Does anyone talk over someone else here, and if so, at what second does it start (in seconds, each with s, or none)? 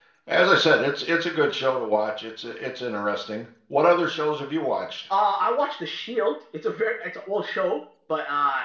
none